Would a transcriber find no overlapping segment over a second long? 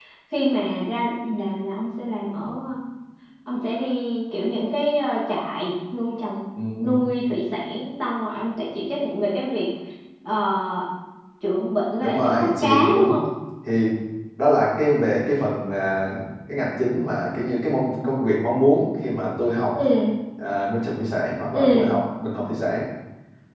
No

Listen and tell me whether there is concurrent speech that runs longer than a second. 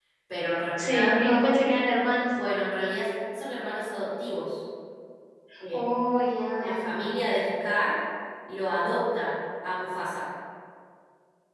No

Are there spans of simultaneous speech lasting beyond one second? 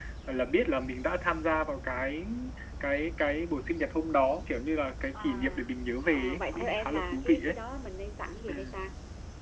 Yes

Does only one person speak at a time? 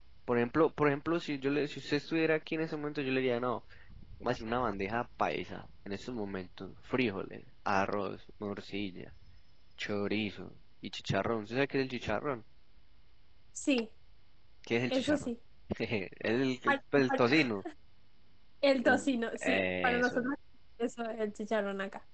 No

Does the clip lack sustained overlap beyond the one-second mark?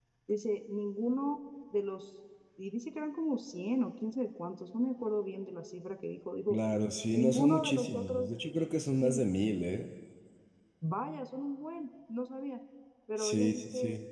No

